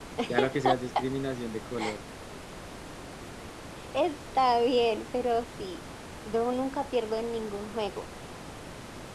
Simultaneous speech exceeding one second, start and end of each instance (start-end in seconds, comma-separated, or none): none